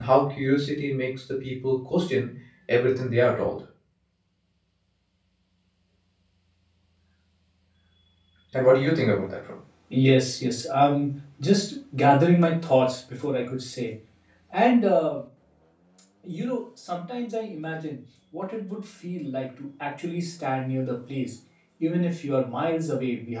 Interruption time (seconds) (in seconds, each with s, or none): none